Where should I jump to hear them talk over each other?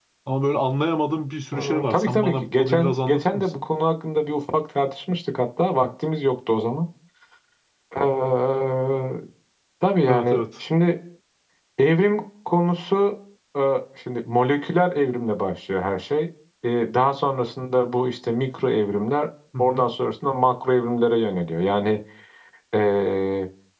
1.5 s

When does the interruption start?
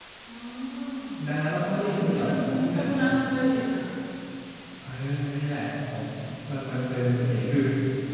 1.7 s

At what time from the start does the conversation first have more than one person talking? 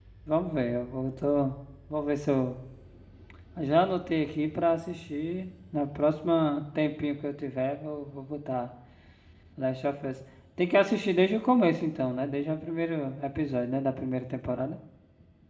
none

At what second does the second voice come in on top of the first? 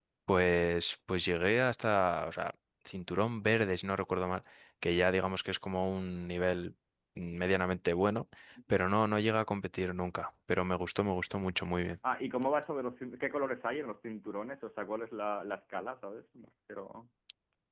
none

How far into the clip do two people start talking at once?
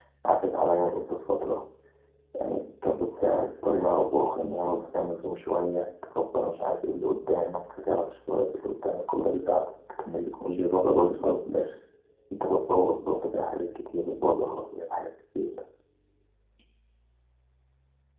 none

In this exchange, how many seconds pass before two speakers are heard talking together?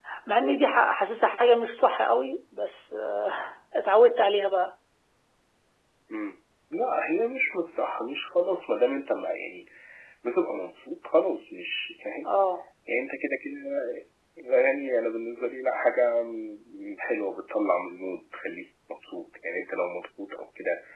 none

